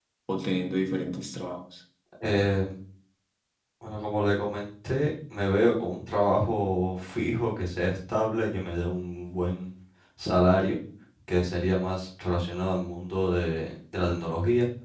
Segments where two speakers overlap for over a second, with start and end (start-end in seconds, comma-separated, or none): none